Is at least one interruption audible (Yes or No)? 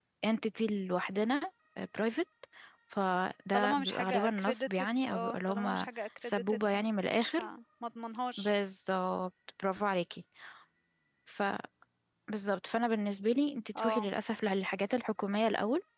Yes